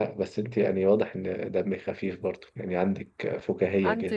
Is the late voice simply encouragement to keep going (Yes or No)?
Yes